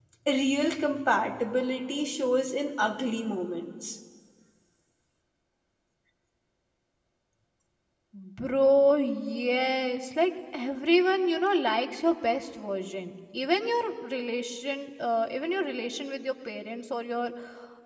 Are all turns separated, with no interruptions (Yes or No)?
Yes